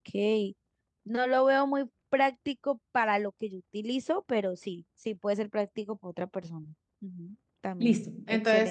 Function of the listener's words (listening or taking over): taking over